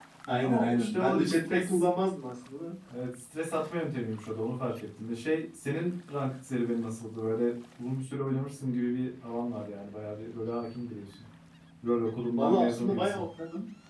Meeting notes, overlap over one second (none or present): present